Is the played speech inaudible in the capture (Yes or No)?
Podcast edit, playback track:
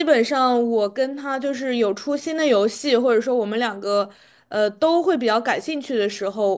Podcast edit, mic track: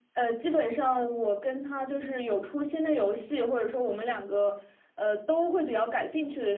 No